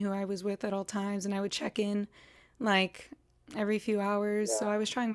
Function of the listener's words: listening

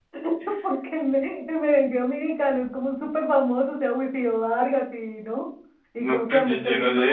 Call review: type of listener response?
taking over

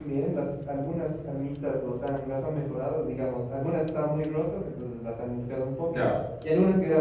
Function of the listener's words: listening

